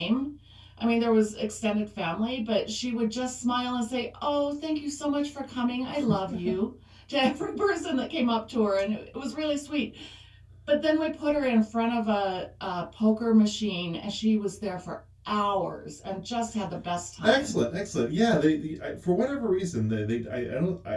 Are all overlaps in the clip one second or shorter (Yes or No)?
Yes